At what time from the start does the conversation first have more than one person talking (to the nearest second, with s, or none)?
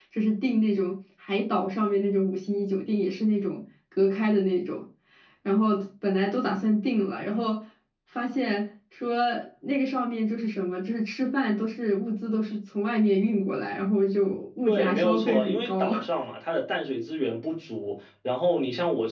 15 s